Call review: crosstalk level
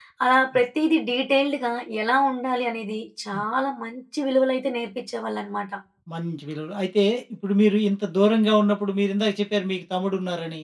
none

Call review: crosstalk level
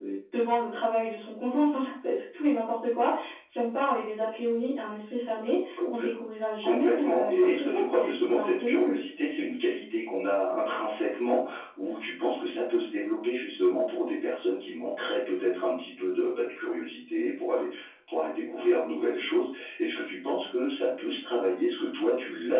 present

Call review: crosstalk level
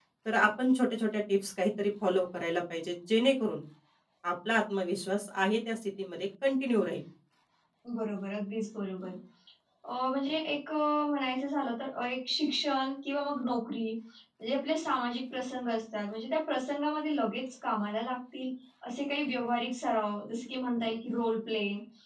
none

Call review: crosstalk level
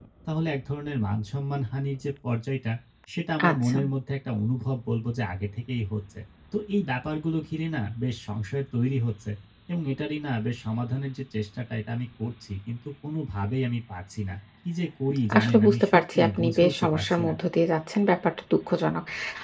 present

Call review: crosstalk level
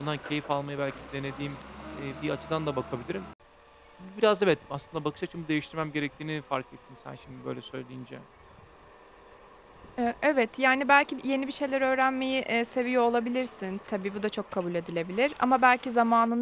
none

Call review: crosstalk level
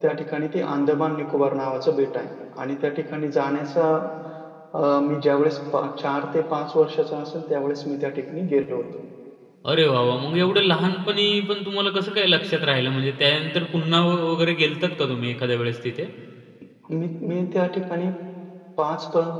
none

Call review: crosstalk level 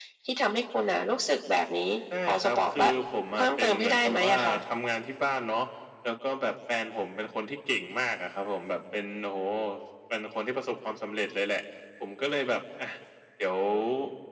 present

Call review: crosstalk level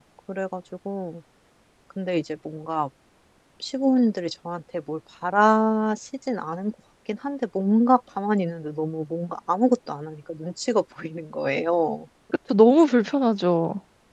none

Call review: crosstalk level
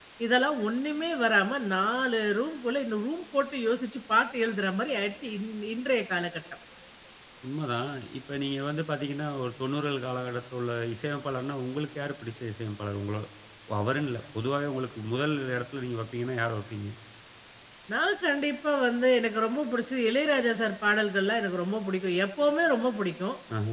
none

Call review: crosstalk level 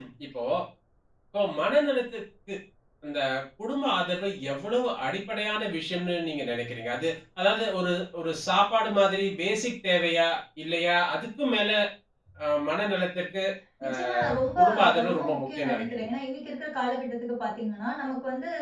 present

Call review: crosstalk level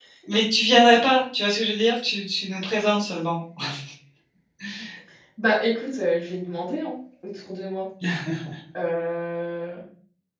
none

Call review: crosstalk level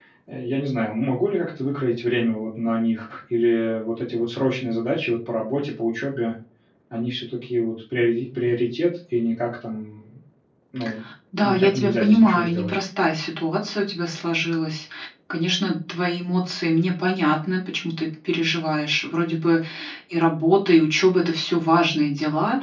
present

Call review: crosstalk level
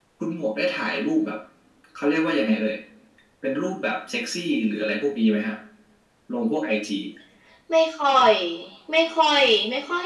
none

